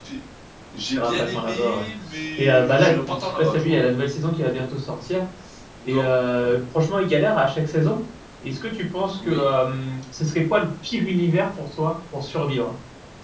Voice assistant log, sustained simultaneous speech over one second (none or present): present